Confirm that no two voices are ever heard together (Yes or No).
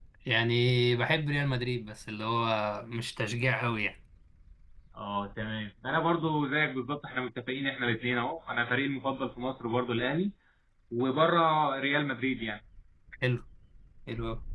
Yes